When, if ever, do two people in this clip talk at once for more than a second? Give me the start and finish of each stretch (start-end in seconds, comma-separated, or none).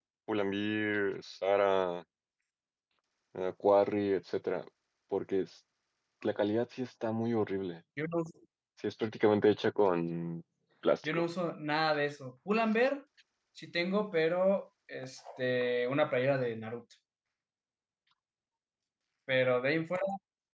none